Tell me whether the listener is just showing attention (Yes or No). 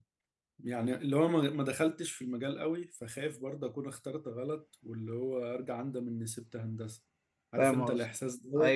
No